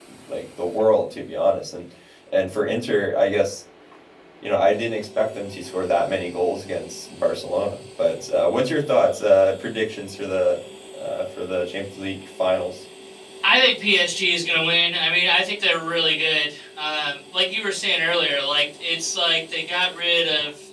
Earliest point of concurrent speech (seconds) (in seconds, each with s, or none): none